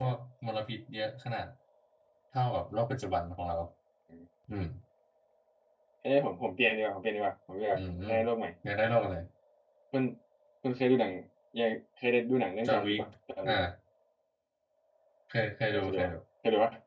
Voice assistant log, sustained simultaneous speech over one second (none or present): none